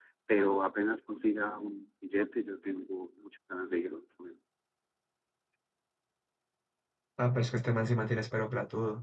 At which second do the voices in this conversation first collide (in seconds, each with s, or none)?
none